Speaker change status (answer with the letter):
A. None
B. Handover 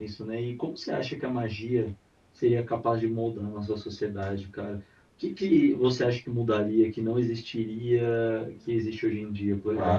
B